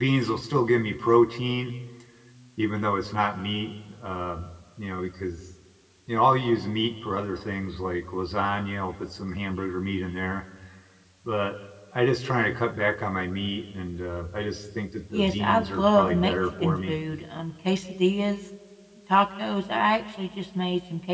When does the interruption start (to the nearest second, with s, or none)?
15 s